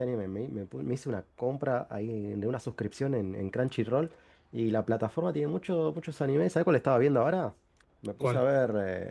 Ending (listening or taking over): listening